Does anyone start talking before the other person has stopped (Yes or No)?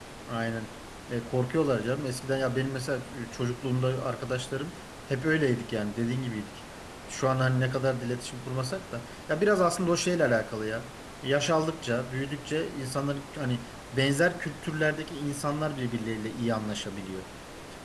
No